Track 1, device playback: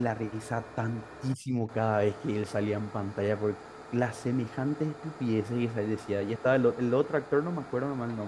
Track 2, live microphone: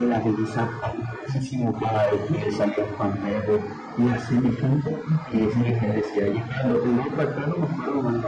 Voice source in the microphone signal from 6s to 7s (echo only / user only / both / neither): echo only